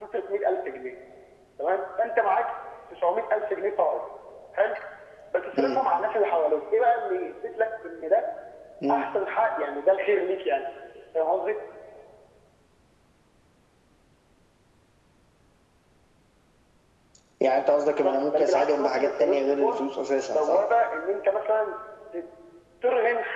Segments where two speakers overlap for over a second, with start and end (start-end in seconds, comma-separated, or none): 17.9-19.8